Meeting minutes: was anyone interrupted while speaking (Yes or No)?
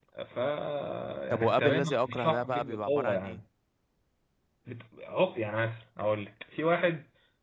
Yes